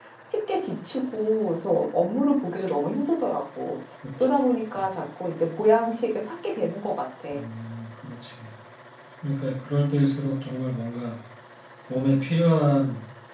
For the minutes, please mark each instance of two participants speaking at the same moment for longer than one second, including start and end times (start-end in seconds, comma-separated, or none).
none